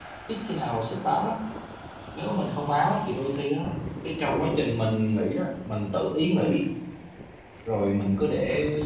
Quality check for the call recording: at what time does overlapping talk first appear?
none

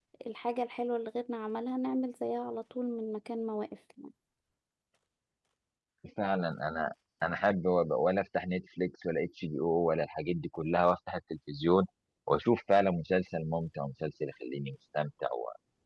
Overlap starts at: none

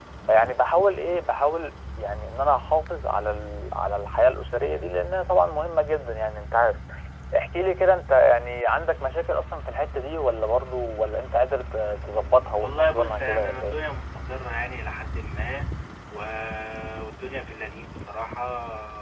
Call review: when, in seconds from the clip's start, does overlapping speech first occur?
12.6 s

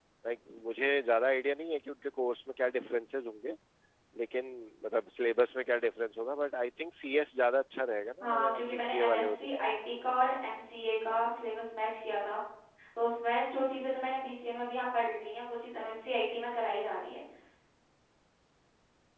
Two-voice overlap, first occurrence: 8.2 s

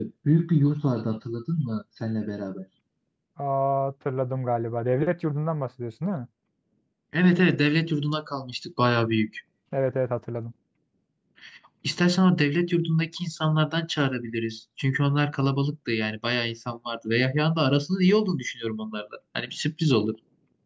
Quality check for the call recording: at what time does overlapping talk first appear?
none

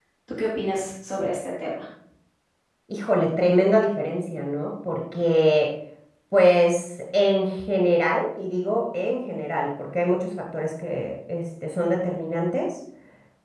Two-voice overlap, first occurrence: none

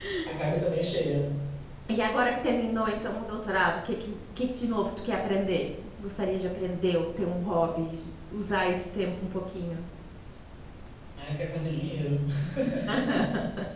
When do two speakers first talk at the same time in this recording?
none

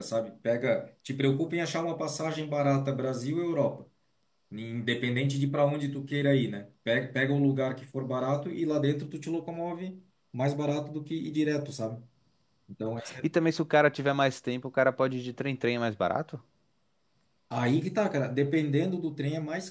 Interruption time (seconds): none

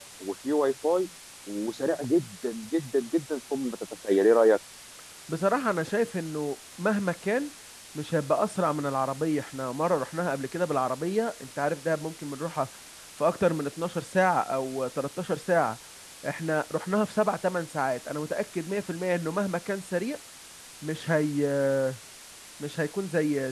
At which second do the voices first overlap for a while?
none

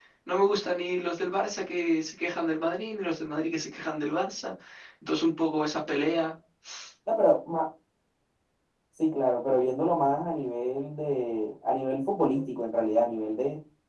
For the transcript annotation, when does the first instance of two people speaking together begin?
none

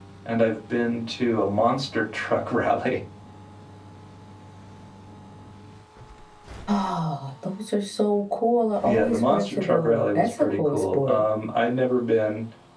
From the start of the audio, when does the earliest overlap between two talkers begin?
8.8 s

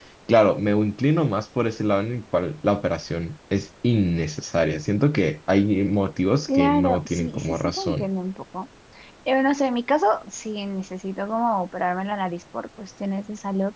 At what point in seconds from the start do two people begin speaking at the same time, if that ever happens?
6.5 s

